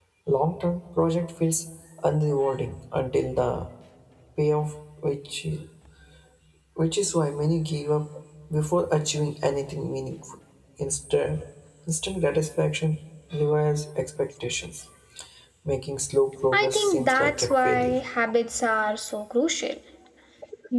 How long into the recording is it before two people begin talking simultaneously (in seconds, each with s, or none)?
16.5 s